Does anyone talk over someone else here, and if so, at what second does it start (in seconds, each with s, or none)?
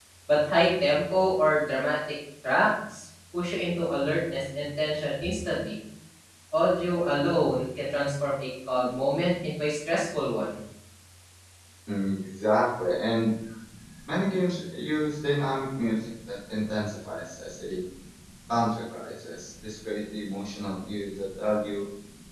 none